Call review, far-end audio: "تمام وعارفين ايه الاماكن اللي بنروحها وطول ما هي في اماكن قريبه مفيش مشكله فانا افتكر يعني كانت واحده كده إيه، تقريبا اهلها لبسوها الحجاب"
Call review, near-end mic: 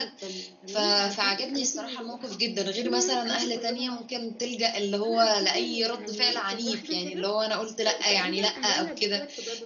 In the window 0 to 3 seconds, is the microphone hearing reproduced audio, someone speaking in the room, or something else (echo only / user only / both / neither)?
both